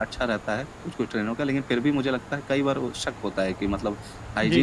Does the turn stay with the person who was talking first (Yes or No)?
Yes